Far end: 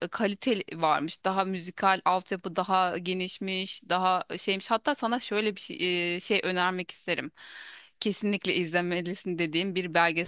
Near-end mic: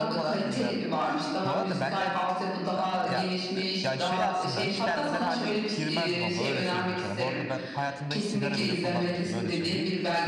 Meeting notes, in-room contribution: present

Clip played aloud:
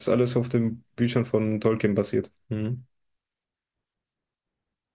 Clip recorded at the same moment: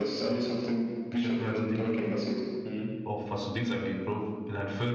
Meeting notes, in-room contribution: present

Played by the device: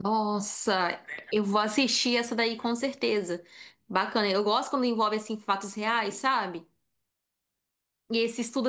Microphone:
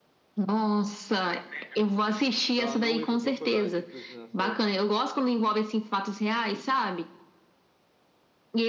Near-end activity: present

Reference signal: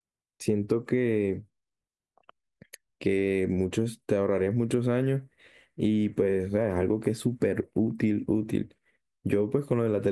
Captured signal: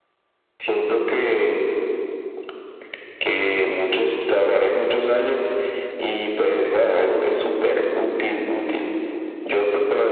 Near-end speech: none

